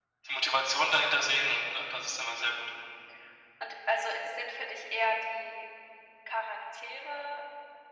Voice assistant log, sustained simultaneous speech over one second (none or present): none